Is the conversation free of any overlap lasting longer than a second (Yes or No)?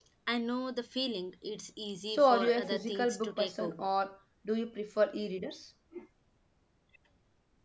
No